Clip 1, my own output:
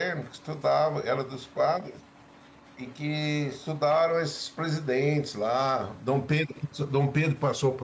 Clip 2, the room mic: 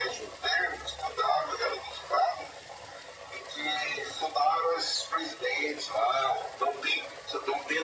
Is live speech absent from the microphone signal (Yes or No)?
Yes